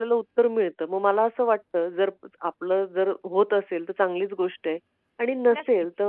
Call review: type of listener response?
listening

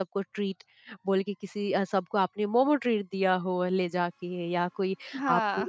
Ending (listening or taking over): listening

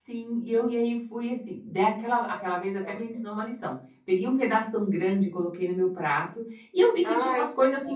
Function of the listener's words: listening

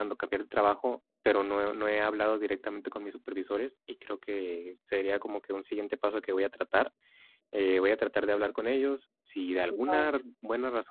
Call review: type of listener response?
listening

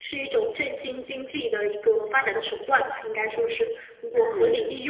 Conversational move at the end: taking over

